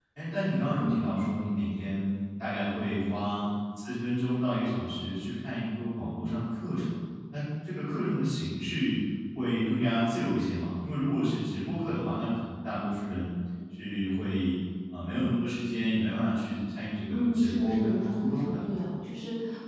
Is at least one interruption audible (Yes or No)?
Yes